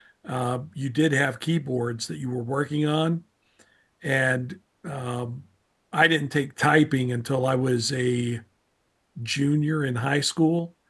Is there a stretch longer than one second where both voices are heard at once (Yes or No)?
No